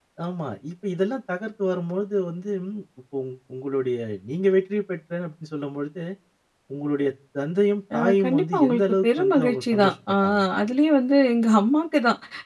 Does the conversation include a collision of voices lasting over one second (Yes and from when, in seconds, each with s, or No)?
Yes, from 7.9 s